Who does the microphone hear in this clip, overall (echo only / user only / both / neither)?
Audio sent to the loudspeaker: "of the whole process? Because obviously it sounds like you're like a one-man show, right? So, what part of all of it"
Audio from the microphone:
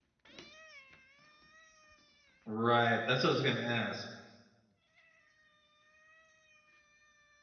user only